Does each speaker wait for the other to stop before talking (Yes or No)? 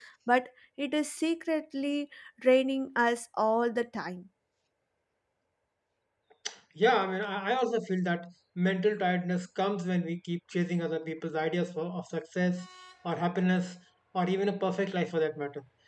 Yes